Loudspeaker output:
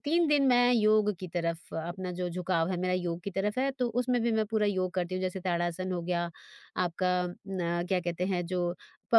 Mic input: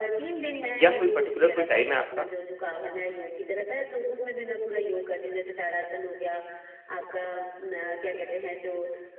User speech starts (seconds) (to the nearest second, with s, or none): 1 s